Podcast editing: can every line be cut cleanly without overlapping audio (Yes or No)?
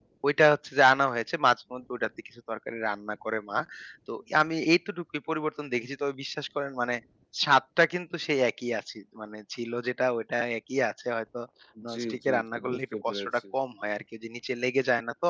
No